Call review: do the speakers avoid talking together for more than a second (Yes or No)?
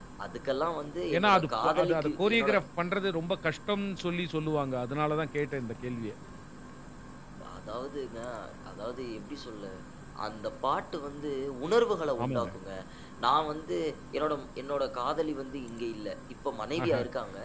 No